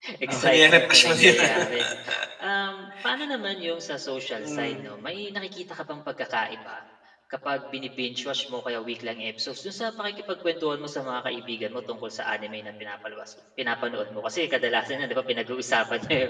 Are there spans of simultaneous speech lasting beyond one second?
Yes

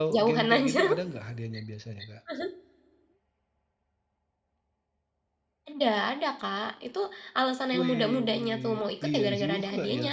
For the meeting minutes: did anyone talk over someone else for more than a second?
Yes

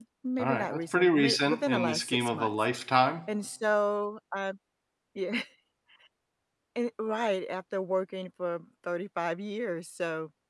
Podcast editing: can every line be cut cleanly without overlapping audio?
No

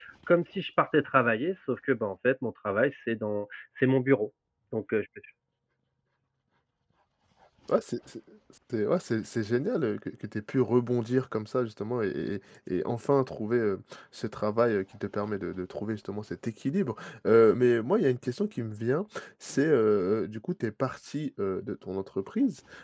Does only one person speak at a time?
Yes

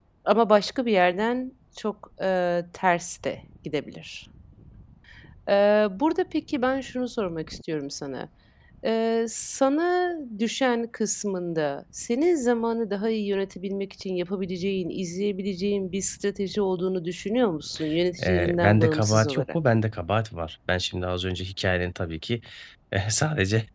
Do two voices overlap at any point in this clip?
Yes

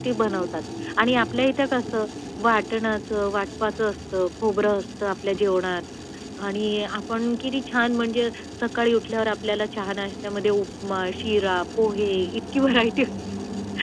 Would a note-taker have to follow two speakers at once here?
No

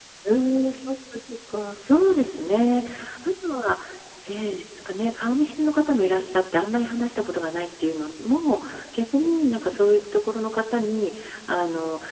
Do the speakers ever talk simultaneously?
No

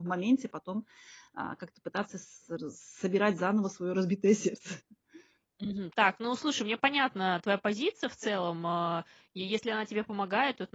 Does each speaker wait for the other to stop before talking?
Yes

